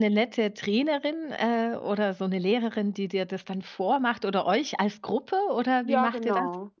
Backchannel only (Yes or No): No